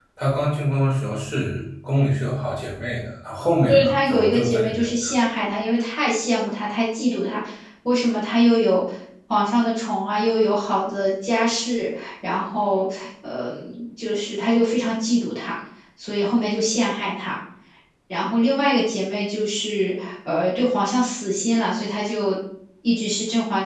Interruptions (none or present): present